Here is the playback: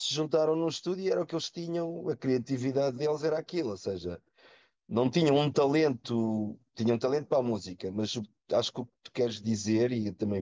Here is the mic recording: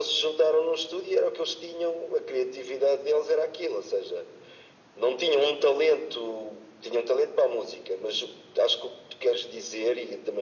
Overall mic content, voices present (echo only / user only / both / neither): echo only